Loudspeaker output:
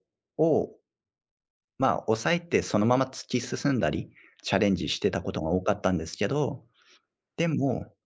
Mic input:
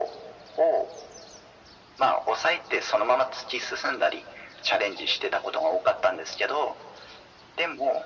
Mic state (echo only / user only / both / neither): echo only